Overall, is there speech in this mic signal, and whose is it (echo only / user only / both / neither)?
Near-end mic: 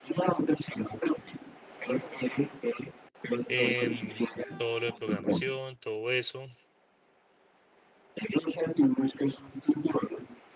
both